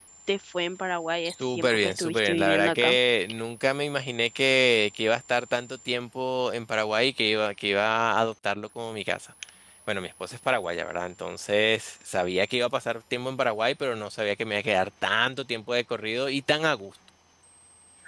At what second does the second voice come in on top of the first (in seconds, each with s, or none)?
1.2 s